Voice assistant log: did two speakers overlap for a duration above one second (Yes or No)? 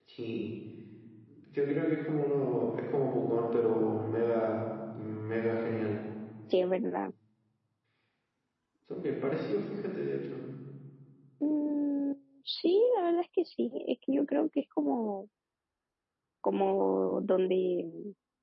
No